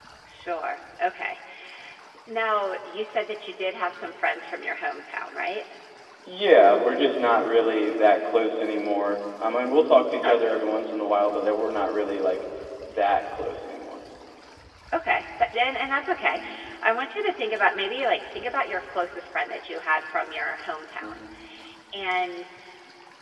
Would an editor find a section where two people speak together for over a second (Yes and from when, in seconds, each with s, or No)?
No